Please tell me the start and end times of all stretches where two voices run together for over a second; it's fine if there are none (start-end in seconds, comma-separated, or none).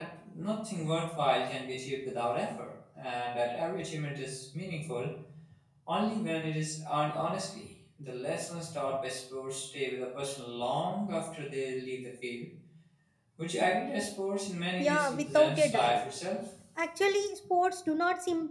14.8-16.0